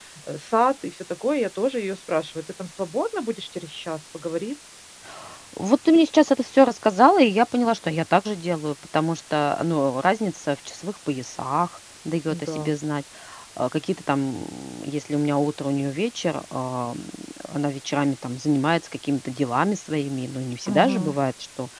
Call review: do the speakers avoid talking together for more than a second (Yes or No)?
Yes